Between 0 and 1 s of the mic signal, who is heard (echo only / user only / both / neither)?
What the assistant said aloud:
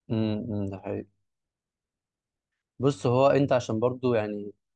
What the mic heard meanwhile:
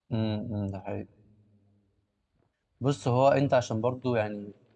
echo only